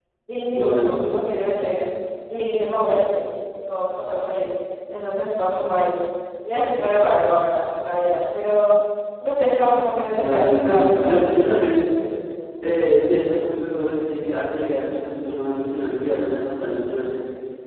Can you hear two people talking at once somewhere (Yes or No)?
Yes